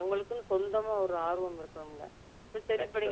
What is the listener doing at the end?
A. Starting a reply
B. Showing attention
B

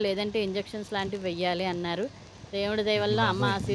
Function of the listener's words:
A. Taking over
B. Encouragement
B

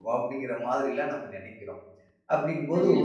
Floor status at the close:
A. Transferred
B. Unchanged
B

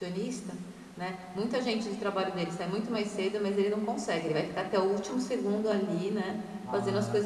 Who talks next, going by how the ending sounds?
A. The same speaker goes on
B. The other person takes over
B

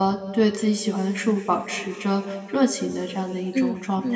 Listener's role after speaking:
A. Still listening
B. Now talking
B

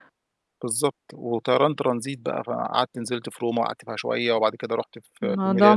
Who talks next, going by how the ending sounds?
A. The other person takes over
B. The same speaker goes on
A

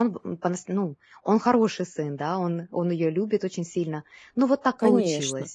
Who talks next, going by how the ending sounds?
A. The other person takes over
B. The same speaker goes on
A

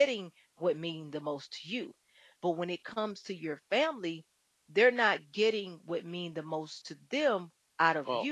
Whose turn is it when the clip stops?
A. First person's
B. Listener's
A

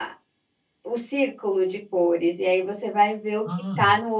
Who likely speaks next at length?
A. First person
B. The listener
A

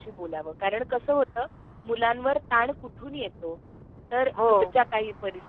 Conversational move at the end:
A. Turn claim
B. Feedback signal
B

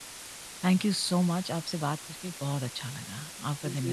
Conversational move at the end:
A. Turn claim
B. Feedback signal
A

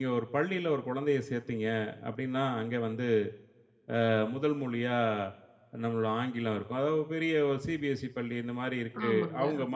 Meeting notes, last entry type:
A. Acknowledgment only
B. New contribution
A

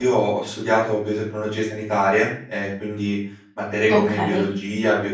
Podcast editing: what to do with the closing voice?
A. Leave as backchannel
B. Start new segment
A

